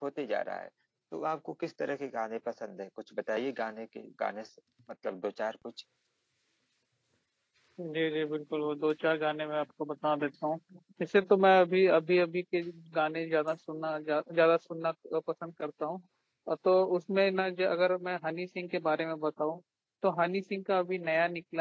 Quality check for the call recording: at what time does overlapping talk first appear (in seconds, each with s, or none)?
none